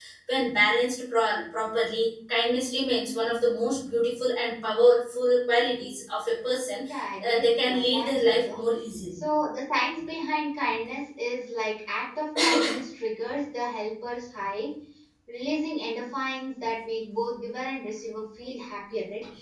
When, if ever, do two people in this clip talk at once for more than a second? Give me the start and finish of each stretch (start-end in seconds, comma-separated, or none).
7.2-8.6